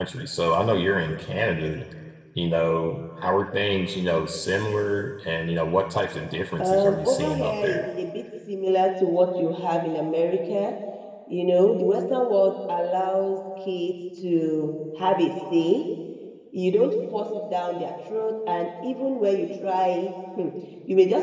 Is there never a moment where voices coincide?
No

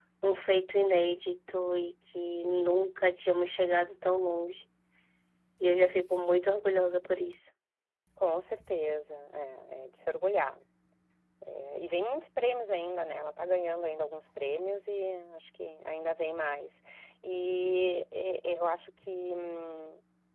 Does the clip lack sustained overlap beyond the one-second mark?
Yes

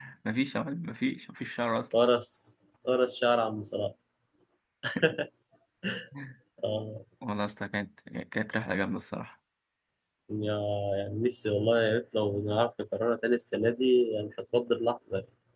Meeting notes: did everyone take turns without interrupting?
Yes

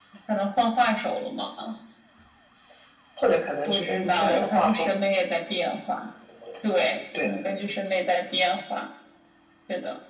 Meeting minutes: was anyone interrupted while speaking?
Yes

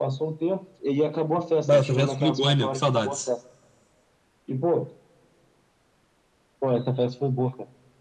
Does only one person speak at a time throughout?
No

